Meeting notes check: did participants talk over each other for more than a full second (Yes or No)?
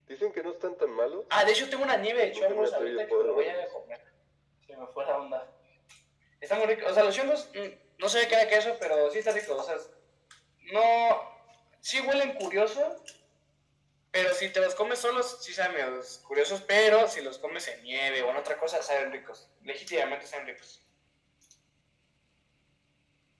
Yes